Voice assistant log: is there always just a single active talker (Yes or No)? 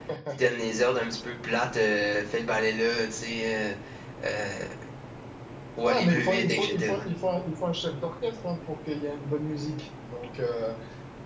No